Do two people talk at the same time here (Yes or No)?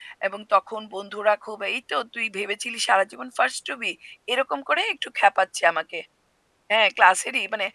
No